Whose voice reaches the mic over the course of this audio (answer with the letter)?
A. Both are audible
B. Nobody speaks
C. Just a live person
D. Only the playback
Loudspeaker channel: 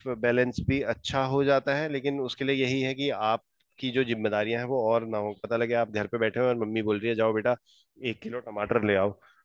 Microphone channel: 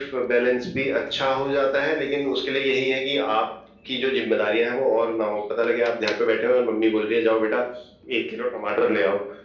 D